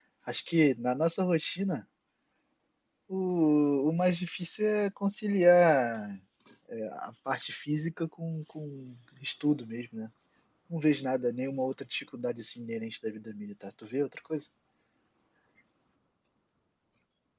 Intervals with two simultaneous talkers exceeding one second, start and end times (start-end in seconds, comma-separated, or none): none